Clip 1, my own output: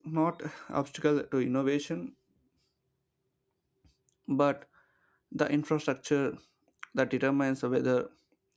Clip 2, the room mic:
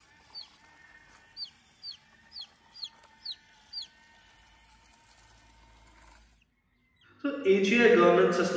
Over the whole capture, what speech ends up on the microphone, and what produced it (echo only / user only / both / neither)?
user only